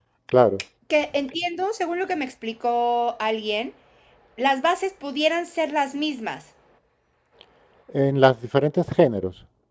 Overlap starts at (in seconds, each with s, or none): none